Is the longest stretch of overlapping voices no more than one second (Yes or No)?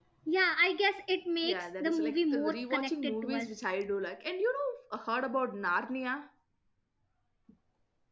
No